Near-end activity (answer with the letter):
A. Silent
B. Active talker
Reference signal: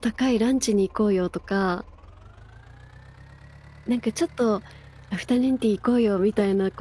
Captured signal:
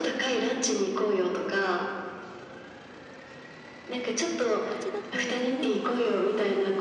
B